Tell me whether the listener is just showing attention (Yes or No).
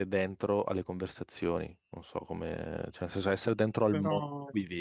Yes